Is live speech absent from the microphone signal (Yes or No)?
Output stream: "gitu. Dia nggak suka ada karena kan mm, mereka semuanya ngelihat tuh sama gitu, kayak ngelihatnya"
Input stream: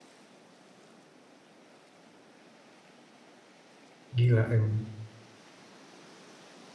No